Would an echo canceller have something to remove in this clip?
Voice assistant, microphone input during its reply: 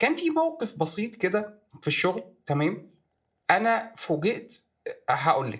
No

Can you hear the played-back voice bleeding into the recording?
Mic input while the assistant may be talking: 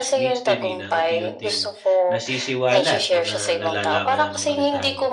Yes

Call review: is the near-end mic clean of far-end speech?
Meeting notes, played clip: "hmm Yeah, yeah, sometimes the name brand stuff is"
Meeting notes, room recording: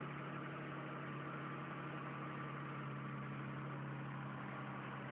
Yes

